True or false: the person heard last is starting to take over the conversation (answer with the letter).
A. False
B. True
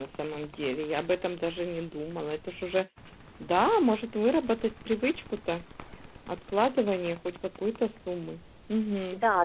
B